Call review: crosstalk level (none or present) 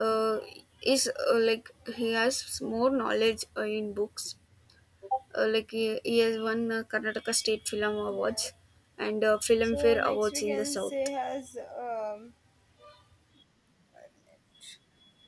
present